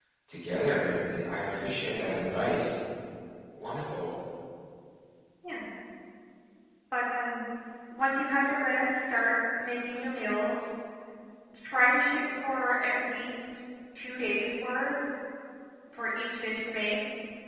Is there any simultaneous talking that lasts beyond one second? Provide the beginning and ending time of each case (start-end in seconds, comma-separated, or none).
none